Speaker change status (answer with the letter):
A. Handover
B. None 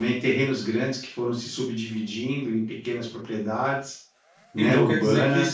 A